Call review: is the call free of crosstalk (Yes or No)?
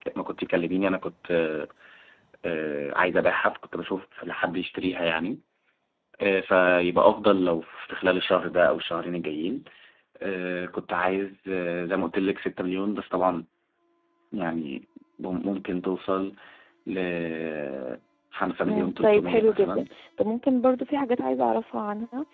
No